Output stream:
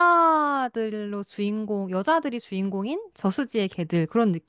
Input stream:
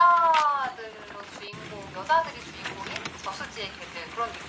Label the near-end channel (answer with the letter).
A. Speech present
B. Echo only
B